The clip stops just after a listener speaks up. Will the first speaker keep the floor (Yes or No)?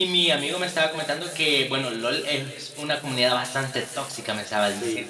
No